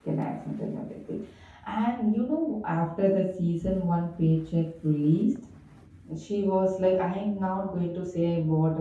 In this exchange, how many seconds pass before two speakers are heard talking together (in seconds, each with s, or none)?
none